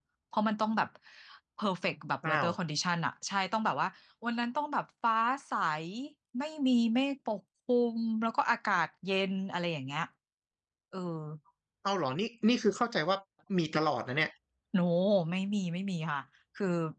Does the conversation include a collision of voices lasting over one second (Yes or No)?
No